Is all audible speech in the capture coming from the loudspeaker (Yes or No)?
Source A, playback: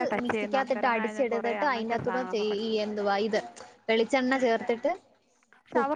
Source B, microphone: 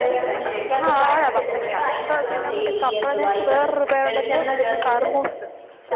No